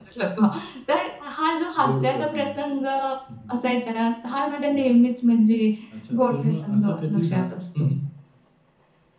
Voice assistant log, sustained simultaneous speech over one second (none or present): present